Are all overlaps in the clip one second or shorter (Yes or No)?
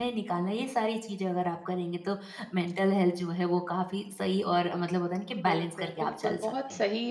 No